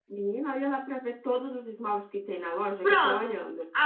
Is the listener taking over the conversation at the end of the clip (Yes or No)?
Yes